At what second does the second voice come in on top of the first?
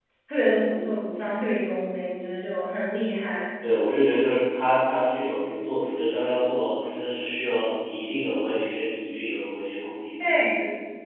none

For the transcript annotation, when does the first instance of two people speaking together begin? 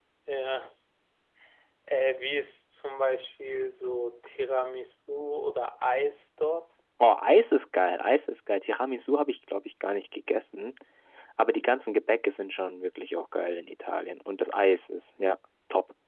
none

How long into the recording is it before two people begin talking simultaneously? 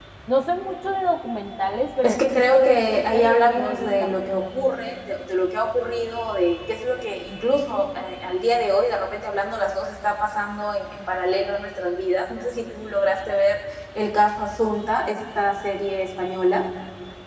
2.0 s

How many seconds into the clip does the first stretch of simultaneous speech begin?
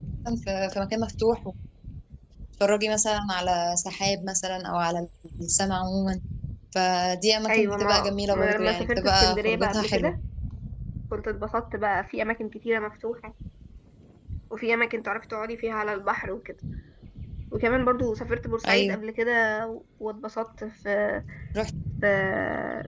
7.5 s

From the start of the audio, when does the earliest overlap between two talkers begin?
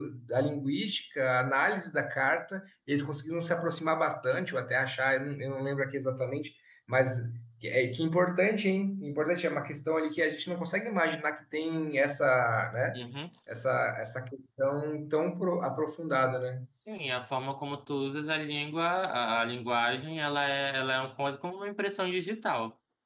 none

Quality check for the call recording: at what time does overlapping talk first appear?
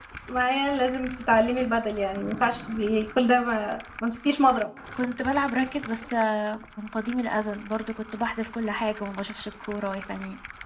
none

